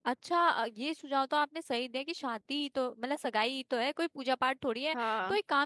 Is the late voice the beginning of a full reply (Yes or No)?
No